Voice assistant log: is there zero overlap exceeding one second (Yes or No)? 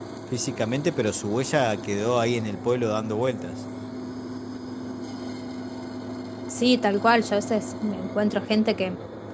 Yes